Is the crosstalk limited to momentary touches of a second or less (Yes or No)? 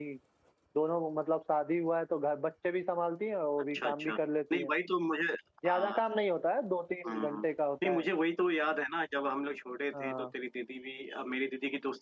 Yes